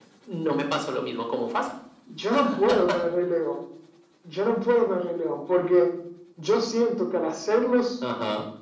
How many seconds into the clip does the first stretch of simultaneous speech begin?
none

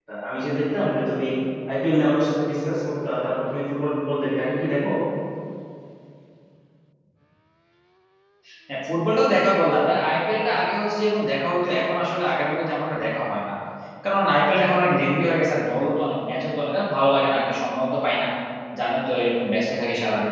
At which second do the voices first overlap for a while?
none

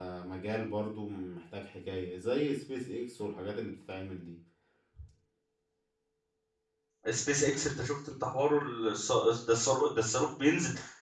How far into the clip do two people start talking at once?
none

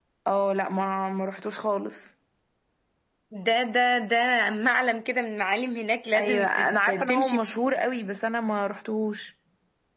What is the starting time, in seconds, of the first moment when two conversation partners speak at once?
6 s

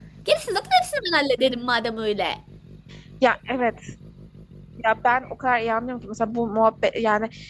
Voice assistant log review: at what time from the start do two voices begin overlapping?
none

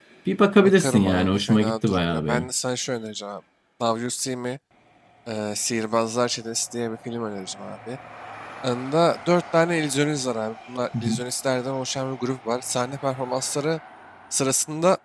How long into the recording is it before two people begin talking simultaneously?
1 s

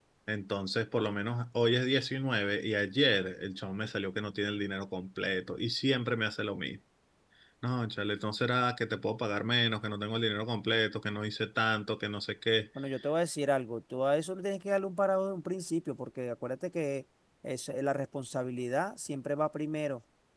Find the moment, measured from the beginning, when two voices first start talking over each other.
none

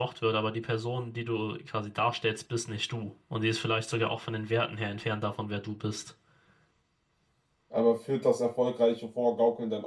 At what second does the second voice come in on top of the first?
none

